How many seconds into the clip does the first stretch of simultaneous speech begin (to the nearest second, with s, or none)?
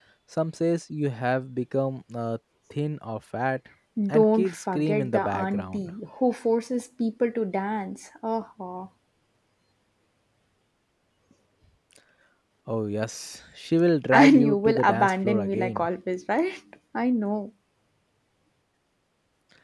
4 s